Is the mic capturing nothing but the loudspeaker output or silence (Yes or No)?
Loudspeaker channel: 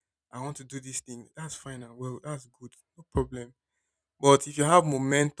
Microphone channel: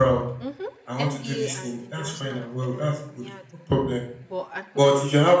No